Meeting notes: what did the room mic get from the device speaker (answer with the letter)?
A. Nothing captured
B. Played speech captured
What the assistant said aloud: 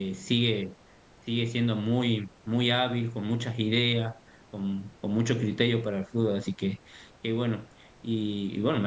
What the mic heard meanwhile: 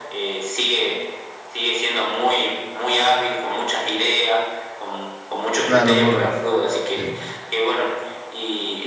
B